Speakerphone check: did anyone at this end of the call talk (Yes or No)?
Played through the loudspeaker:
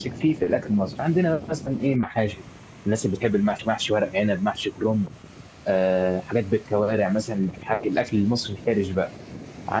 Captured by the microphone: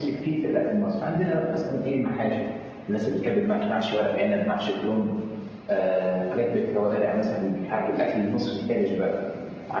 No